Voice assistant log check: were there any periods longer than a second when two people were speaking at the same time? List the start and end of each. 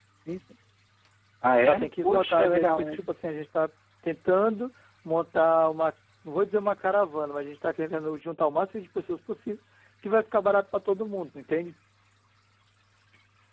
1.7-3.0

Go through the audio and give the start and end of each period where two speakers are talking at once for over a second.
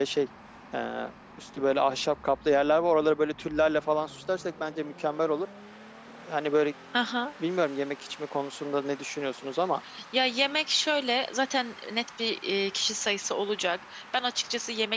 none

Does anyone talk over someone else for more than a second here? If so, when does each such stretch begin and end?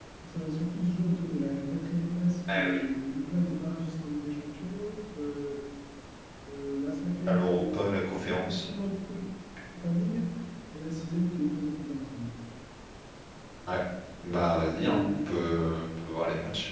none

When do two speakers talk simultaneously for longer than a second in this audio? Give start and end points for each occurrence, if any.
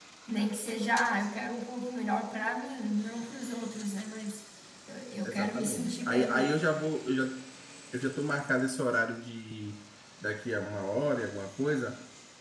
5.2-6.5

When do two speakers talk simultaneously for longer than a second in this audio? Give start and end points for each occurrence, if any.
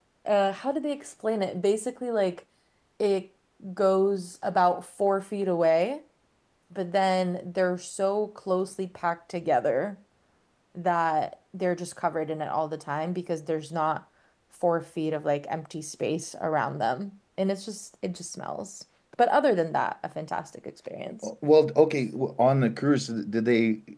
none

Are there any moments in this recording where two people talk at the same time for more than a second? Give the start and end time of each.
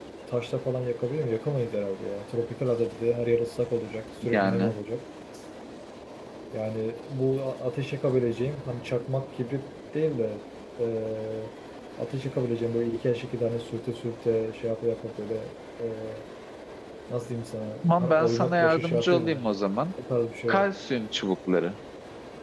18.0-19.4

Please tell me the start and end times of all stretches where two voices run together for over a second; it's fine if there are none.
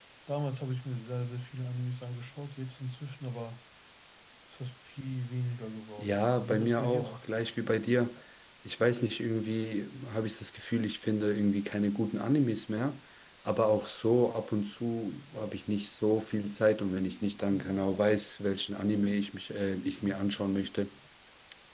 6.0-7.3

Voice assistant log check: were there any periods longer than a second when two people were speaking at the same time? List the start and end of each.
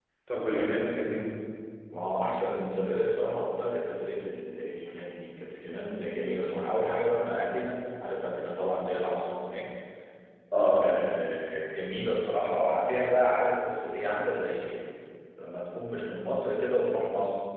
none

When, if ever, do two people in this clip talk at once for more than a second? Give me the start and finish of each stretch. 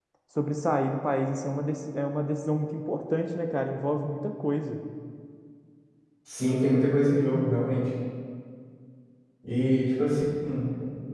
none

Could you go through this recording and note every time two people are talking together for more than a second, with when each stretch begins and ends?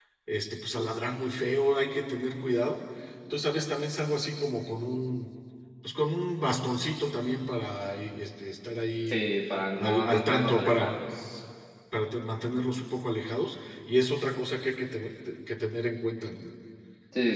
9.7-11.0

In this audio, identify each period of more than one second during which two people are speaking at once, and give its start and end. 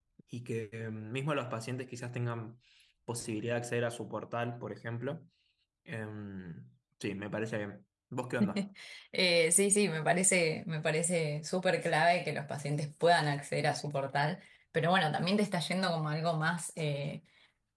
none

